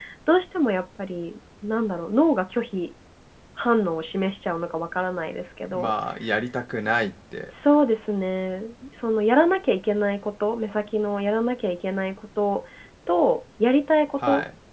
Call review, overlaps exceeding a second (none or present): none